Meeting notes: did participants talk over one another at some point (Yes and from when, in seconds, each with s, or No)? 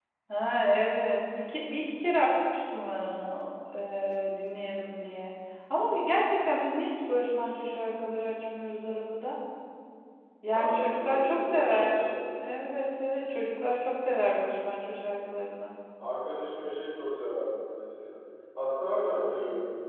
Yes, from 10.5 s